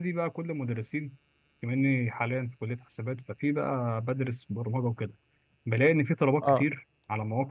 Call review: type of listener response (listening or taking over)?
listening